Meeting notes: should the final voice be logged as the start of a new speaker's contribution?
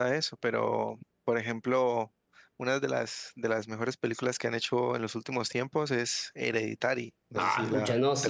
Yes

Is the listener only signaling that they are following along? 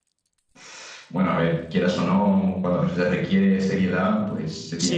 No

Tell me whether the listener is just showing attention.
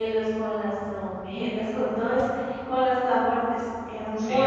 No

